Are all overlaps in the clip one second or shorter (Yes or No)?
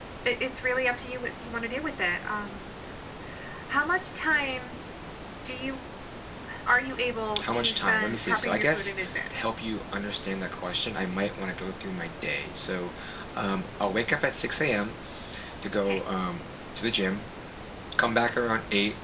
No